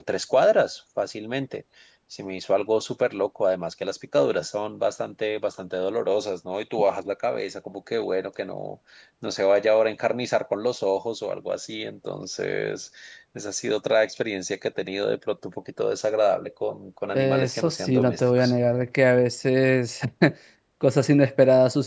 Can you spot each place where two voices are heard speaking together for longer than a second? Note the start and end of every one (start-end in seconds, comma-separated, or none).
17.1-18.5